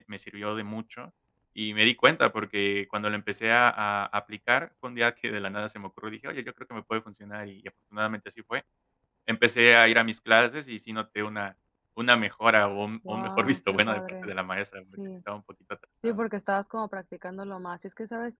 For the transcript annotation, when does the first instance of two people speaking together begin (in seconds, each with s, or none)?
13.1 s